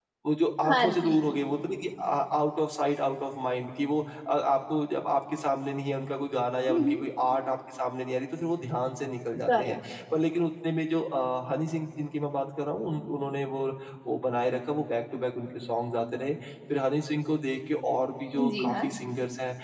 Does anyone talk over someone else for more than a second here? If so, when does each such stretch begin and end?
none

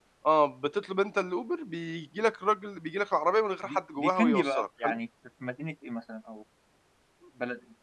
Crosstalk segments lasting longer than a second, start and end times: 3.7-5.0

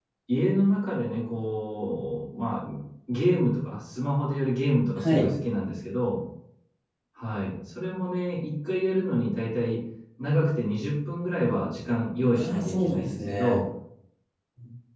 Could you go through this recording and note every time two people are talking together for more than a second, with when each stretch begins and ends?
12.3-13.6

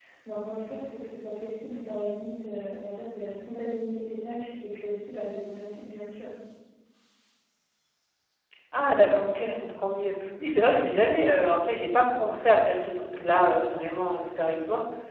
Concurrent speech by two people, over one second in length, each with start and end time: none

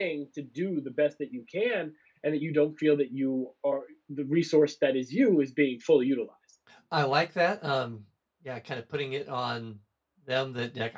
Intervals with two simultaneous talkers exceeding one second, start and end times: none

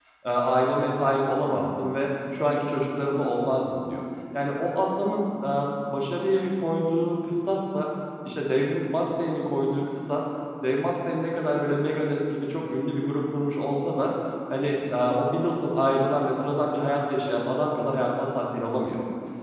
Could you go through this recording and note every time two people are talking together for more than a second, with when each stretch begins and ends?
none

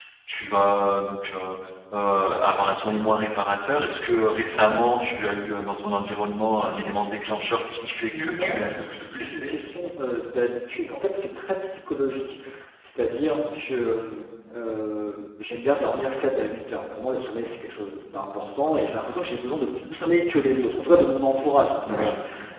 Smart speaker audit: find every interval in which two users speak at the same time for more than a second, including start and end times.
8.2-9.5

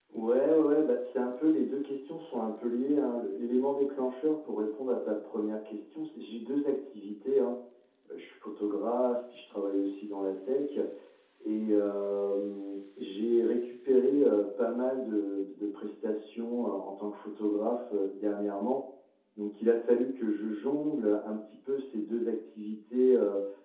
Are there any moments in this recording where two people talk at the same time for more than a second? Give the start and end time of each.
none

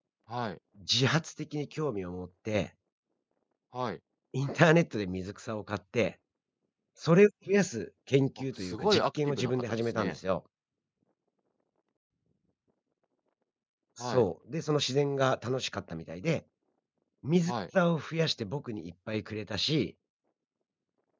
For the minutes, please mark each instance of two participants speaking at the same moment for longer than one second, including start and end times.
8.6-10.2

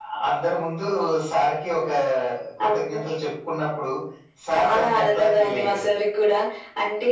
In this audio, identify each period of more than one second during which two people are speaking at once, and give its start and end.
4.5-5.9

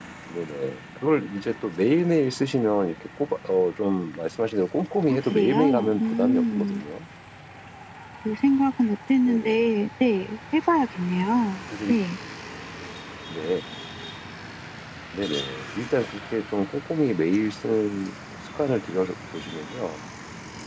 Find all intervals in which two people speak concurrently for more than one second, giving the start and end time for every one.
5.1-6.8

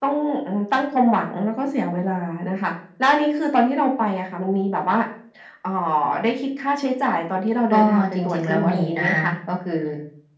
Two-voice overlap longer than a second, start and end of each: 7.7-9.3

